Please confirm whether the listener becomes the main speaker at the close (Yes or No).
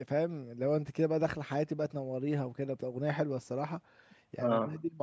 No